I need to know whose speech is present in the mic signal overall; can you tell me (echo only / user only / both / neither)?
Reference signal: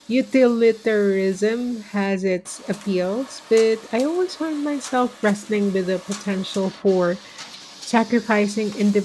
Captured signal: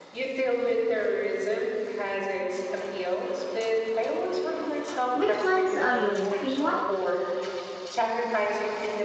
both